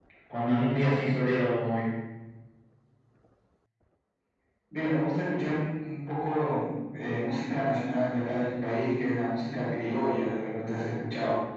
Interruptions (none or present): none